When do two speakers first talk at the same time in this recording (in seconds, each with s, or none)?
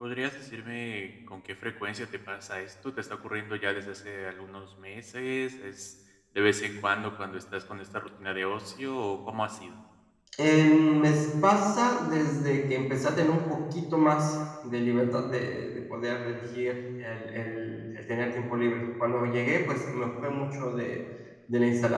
none